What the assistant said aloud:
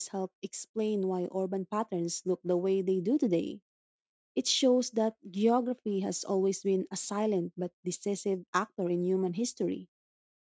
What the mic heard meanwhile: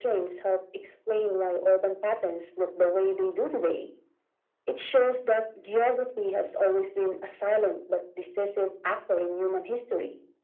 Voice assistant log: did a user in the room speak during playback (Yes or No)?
No